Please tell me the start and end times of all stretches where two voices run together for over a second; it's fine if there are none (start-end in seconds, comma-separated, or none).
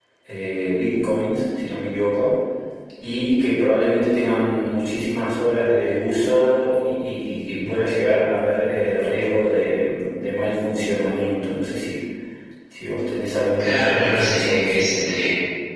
13.6-15.2